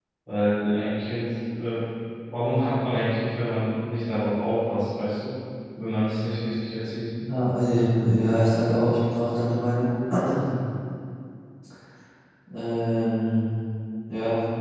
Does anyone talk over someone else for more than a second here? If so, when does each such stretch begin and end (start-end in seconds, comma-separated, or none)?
none